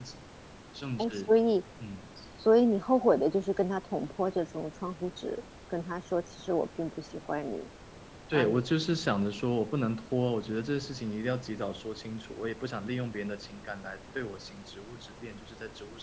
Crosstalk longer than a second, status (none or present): none